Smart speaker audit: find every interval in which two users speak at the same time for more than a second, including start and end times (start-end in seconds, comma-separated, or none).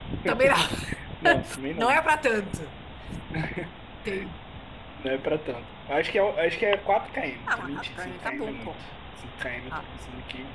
7.5-8.7